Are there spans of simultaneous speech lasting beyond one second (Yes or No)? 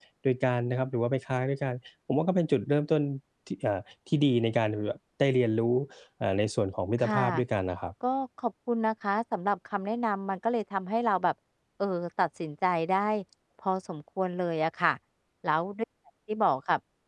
No